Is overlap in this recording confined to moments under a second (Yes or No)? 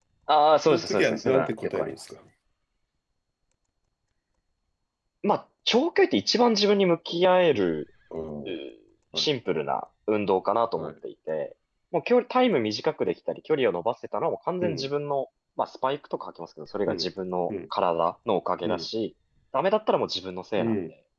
No